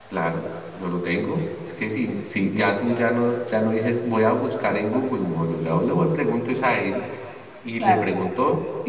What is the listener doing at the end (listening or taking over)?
listening